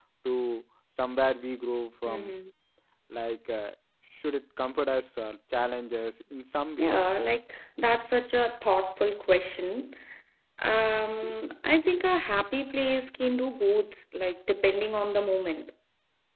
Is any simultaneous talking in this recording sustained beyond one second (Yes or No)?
No